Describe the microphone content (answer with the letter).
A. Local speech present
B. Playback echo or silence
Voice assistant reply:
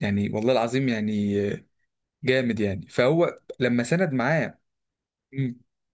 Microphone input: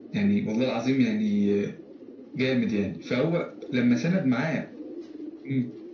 B